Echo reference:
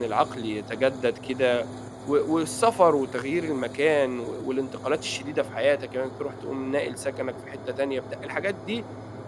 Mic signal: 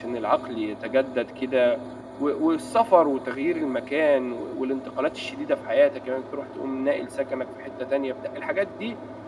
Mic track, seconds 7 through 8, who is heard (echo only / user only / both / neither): echo only